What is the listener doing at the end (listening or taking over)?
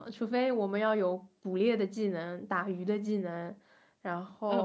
taking over